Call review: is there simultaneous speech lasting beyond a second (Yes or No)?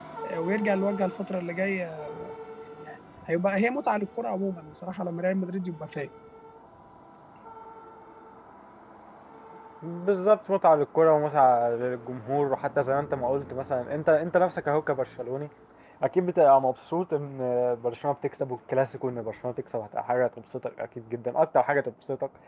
No